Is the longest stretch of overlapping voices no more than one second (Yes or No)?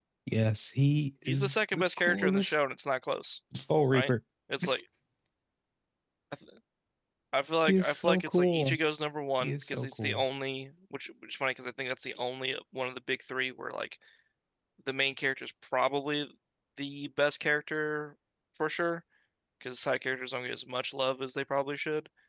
No